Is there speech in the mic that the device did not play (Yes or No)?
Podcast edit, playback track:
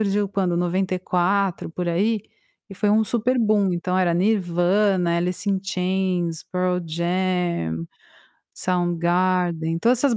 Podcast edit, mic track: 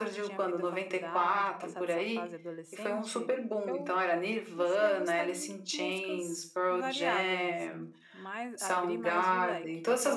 Yes